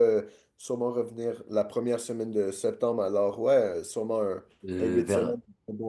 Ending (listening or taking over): taking over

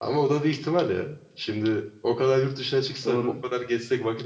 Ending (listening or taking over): listening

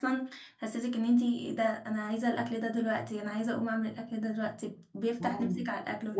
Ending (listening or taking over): taking over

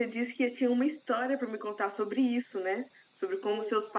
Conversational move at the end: listening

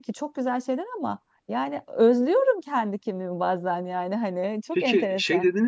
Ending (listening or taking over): taking over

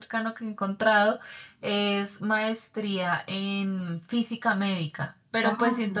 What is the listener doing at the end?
listening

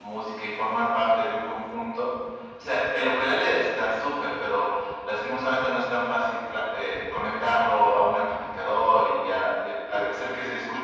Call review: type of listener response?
listening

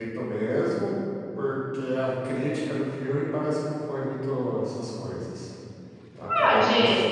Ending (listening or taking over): taking over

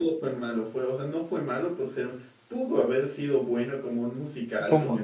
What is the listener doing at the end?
listening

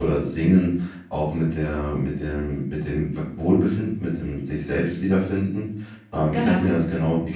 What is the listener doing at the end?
listening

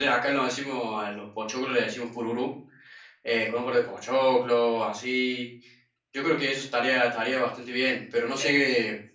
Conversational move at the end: listening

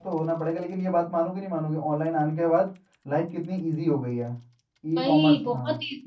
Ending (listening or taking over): taking over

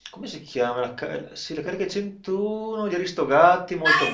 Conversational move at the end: taking over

